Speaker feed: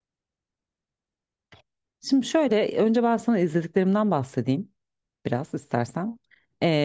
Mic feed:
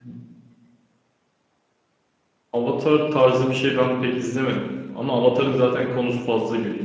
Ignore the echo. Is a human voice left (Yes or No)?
Yes